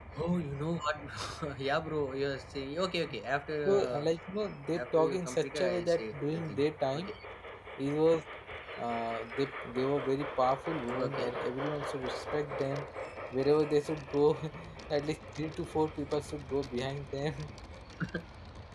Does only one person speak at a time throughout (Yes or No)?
No